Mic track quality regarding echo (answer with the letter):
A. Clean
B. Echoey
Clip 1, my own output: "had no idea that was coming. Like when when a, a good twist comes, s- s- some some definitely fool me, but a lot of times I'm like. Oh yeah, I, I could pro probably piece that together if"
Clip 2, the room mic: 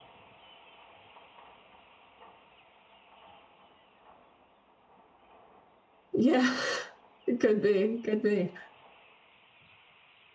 A